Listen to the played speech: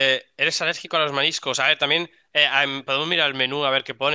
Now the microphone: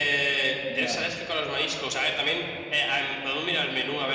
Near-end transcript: Ya.

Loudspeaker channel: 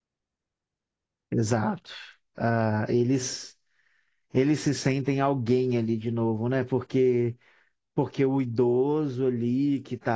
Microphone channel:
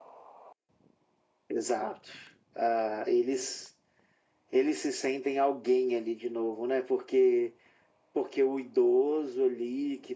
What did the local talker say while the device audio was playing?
none

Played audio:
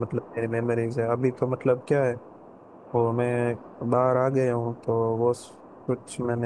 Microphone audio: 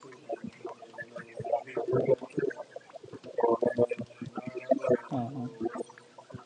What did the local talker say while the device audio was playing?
हाँ हाँ

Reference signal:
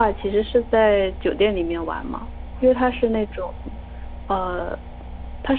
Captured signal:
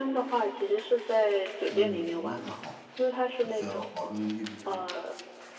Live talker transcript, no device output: 嗯，那还好，只要保证一直，

